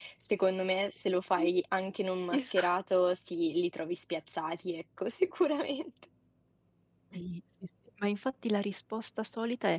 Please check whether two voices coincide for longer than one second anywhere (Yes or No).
No